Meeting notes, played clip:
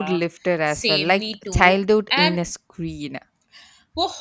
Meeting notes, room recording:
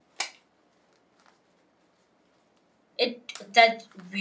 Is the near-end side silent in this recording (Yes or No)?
No